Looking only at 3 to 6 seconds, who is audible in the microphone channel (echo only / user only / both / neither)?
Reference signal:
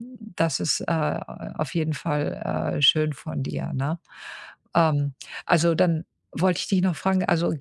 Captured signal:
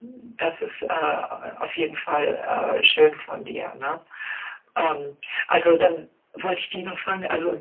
echo only